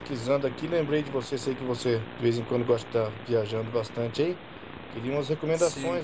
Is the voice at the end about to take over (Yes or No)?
No